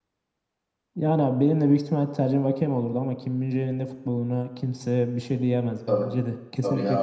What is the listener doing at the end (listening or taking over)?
taking over